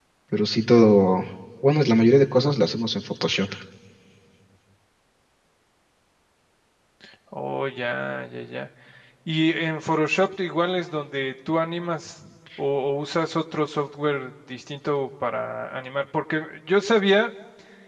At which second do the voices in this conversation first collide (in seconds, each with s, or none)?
none